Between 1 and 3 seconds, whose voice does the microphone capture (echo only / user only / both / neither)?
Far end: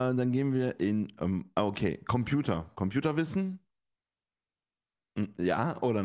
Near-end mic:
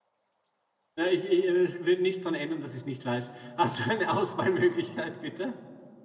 user only